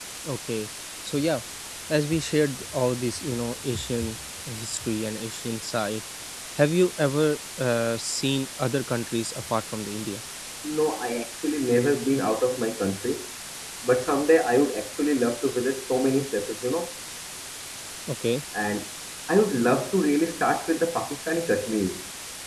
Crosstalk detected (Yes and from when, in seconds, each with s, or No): No